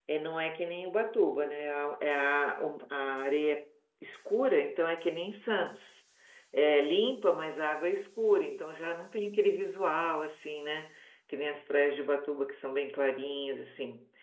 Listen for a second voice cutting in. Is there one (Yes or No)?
No